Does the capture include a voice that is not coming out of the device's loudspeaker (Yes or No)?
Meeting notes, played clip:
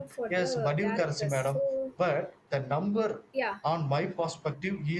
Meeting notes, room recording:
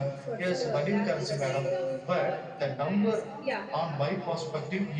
Yes